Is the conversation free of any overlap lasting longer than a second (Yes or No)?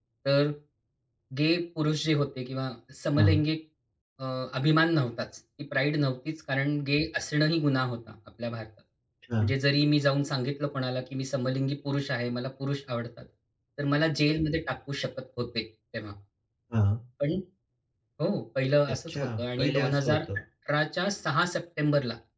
No